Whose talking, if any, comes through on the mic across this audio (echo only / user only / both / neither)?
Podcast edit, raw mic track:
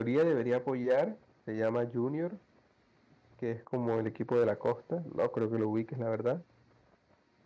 user only